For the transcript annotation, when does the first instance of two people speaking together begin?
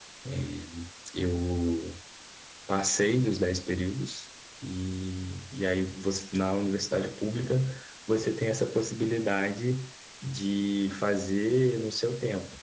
none

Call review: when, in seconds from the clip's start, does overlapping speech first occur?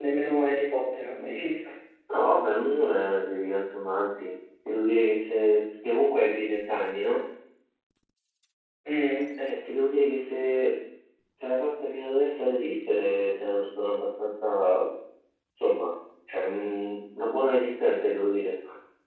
none

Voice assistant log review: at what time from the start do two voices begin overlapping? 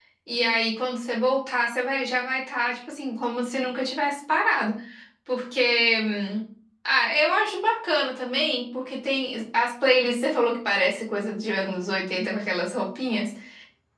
none

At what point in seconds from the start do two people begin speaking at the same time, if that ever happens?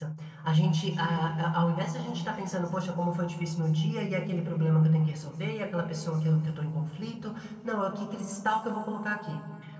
none

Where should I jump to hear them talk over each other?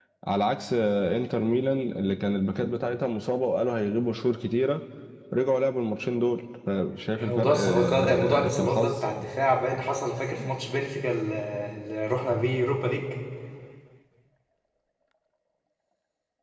7.2 s

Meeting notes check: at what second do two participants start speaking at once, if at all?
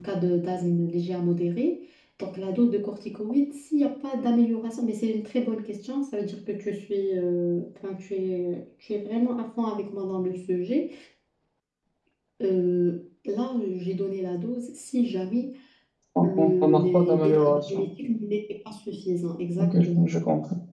16.2 s

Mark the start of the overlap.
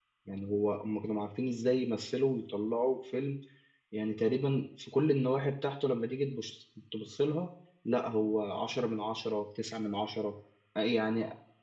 none

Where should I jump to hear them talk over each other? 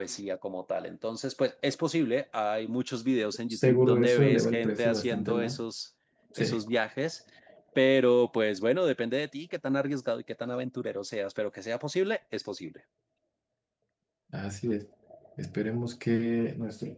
3.5 s

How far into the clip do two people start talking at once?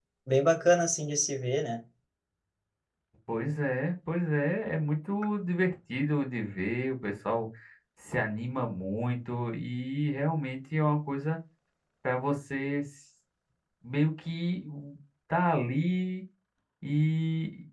none

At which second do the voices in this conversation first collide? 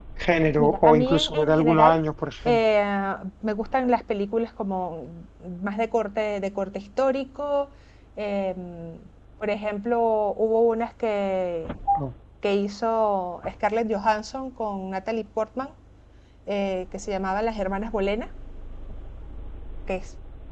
0.6 s

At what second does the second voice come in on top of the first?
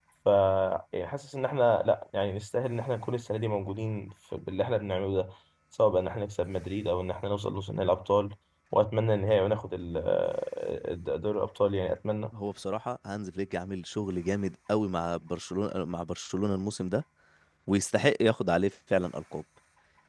none

